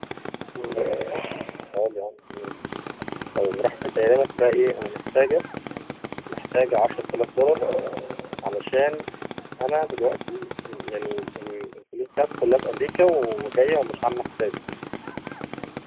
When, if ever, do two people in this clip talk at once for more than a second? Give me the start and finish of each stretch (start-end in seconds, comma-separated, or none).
none